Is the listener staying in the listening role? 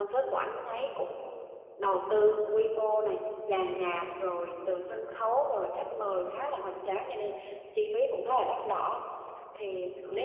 Yes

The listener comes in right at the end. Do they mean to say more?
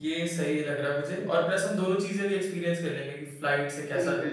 Yes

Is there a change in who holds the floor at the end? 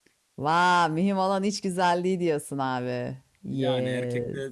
Yes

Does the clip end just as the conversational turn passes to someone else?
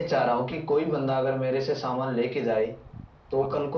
No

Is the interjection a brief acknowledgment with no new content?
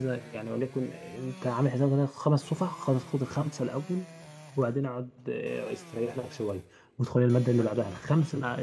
Yes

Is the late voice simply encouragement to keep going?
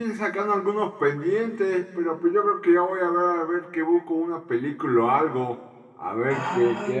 No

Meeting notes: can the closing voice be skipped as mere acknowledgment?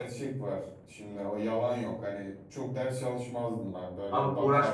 No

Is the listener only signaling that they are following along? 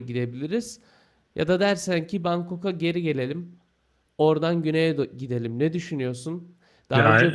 Yes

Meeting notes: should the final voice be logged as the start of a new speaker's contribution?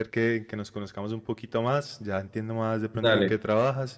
No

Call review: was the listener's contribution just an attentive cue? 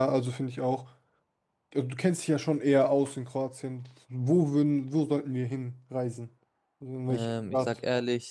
No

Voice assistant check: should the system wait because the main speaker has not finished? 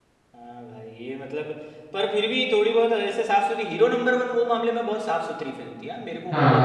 No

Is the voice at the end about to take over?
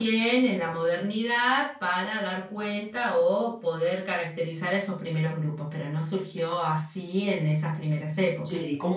Yes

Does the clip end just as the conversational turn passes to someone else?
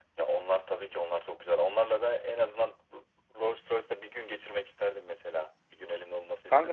Yes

